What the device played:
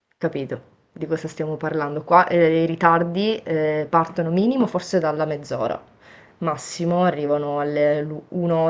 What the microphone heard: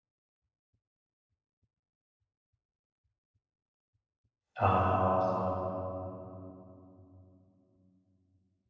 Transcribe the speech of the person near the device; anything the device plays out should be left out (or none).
Ah,